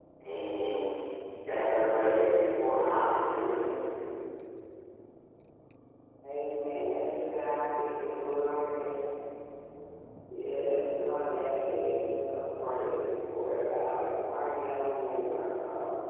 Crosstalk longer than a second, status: none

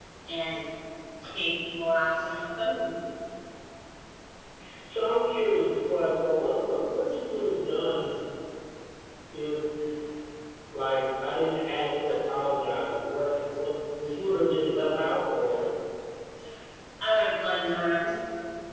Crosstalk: none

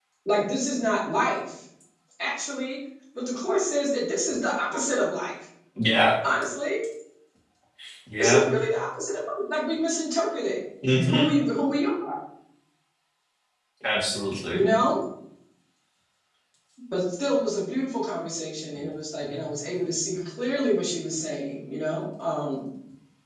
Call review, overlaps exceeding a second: none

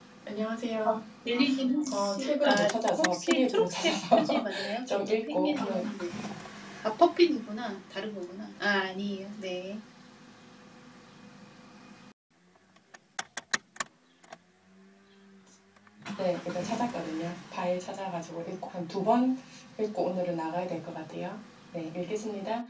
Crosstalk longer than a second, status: present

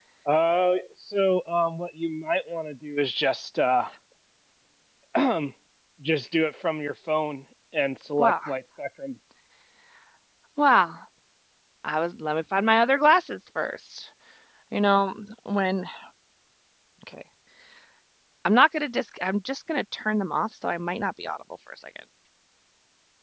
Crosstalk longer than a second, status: none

